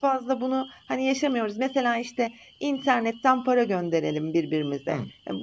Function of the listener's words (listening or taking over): listening